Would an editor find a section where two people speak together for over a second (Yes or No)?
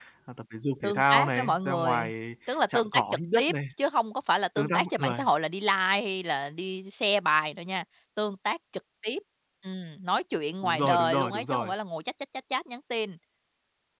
Yes